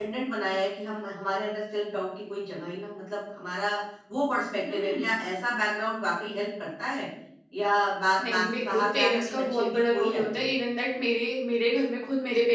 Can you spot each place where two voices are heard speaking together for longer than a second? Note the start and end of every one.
8.2-10.5

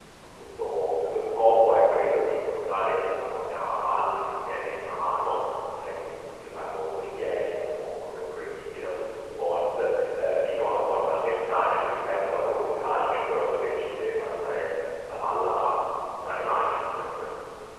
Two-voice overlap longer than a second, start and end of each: none

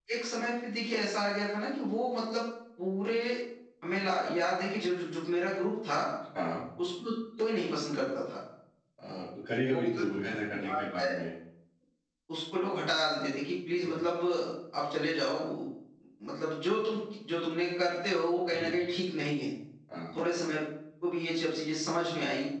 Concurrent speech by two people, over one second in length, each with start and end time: none

